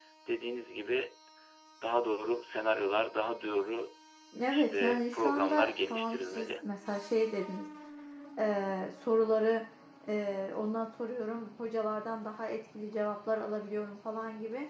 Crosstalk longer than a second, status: present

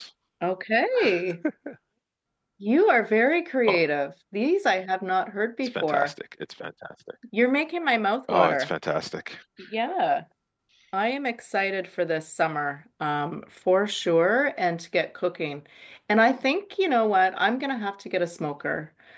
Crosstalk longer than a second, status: none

